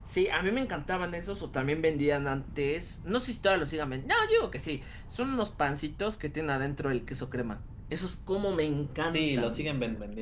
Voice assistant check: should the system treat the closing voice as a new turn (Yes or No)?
Yes